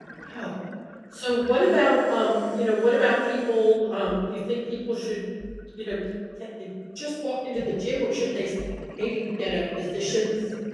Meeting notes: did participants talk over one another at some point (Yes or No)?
No